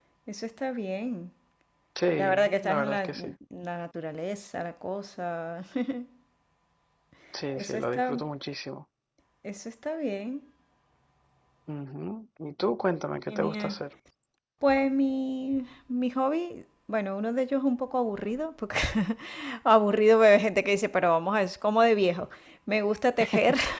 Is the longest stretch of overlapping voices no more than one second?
No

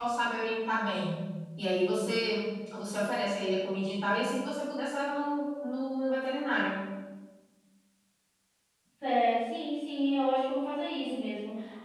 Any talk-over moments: No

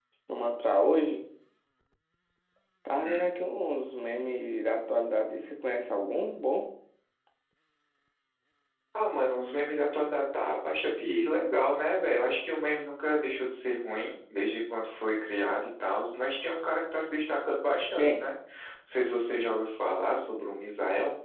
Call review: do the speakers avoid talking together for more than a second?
Yes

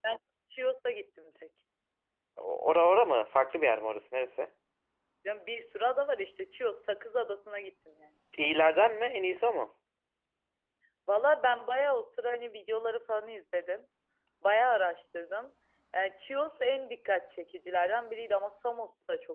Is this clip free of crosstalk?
Yes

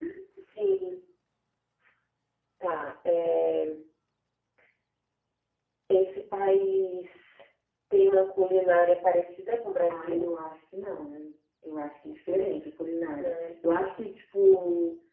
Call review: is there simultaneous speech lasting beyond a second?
No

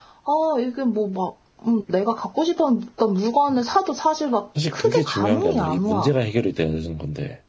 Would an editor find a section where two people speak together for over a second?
Yes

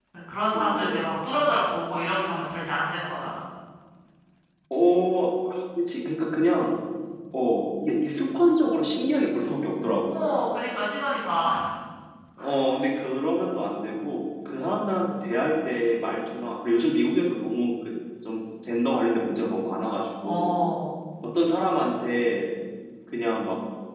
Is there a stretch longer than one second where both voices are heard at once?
No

